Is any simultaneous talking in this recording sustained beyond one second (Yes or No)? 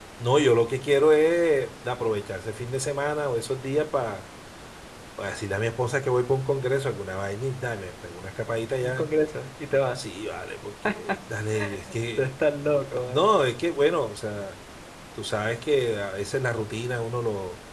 No